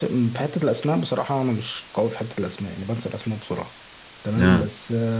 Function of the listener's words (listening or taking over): listening